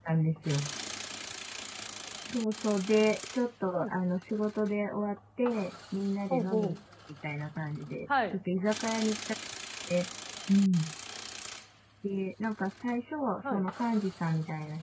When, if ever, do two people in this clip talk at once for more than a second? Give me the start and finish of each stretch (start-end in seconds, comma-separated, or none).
none